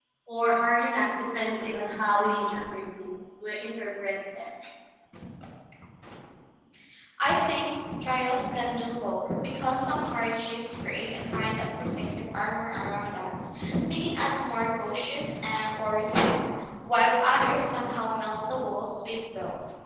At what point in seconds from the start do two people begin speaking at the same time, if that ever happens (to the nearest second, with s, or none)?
none